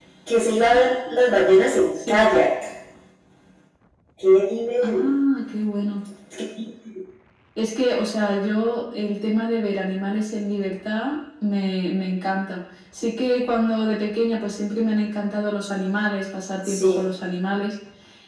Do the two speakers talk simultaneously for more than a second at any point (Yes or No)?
No